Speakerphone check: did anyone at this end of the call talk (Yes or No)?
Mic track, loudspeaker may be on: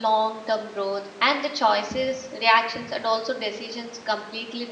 Yes